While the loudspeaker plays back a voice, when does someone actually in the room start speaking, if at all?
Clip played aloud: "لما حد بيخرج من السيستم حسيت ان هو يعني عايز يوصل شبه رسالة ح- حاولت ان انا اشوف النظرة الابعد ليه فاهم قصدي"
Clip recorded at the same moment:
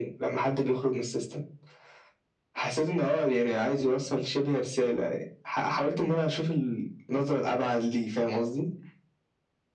none

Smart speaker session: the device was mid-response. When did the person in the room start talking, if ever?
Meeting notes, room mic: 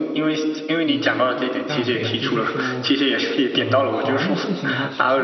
0.8 s

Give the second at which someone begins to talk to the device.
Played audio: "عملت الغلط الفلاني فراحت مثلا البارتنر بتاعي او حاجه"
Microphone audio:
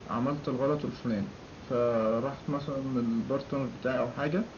none

